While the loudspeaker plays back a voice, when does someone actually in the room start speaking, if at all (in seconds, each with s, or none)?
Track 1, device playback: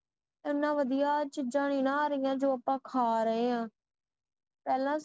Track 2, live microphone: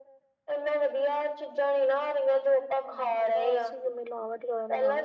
2.8 s